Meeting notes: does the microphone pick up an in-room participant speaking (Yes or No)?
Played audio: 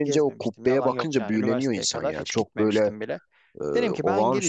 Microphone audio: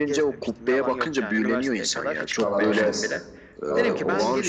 Yes